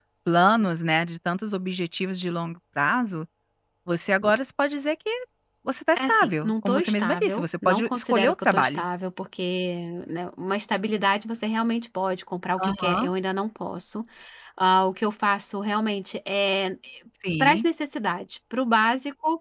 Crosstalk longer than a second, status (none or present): present